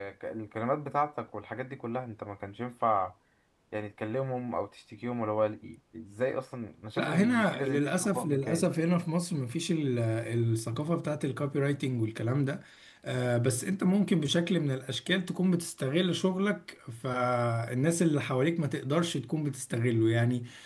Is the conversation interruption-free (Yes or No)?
No